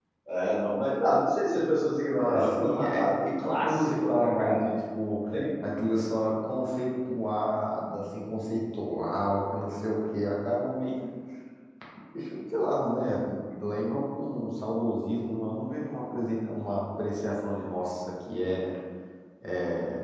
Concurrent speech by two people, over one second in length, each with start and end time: 2.2-4.7

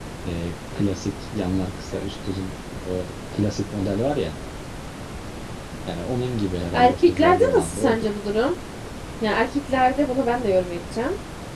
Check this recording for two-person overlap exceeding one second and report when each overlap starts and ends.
6.7-8.1

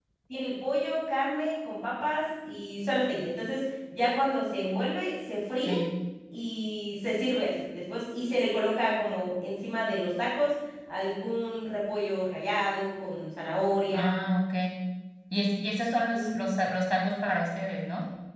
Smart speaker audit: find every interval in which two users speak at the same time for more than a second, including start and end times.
none

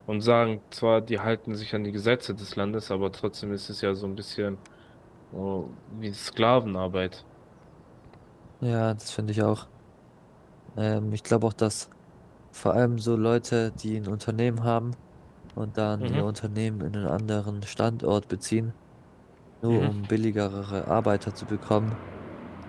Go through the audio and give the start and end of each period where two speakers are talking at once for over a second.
none

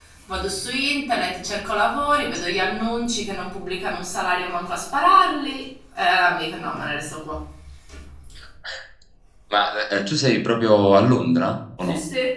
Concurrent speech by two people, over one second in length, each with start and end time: none

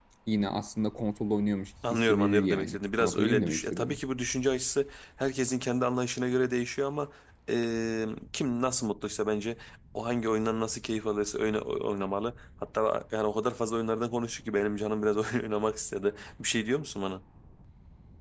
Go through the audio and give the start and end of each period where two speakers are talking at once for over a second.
1.9-4.0

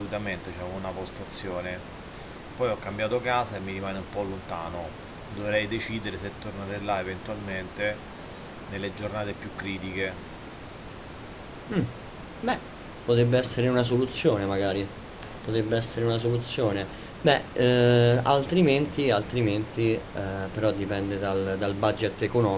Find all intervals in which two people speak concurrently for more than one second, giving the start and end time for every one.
none

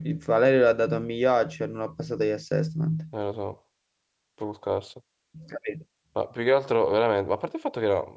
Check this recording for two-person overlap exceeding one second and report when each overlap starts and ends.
none

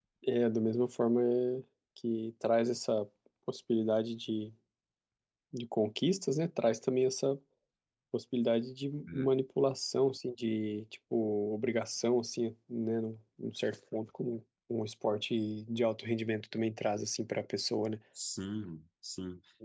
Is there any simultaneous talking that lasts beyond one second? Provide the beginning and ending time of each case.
none

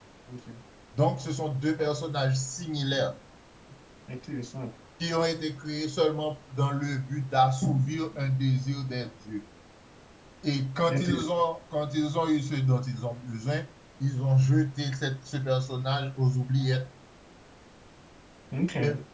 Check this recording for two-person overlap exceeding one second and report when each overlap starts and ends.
none

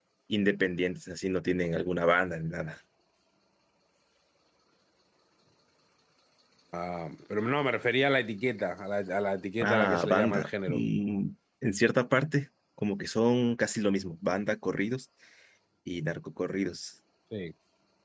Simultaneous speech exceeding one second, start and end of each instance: 9.6-10.8

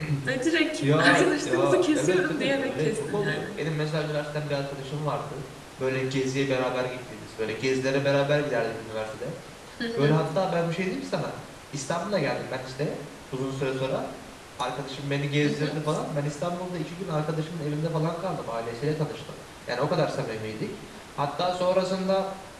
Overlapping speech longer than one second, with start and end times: 0.8-3.4

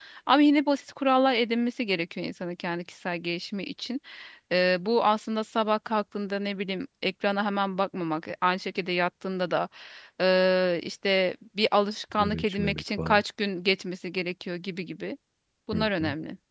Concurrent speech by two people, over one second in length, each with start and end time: 11.9-13.2

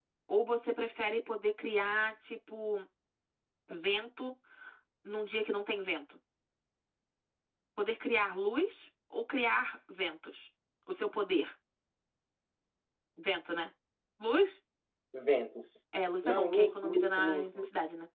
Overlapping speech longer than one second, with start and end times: 16.2-17.4

